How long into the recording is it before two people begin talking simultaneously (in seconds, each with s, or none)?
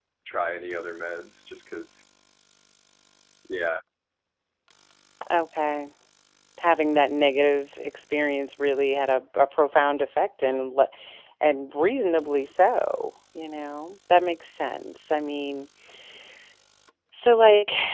none